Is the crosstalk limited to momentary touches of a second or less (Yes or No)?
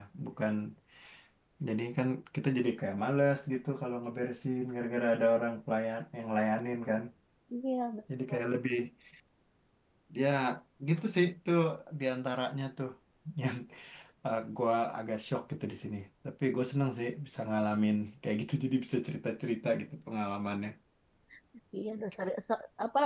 Yes